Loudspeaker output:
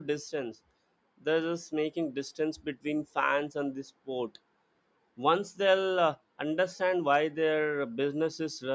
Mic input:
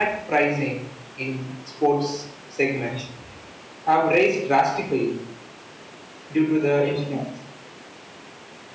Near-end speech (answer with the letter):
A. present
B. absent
A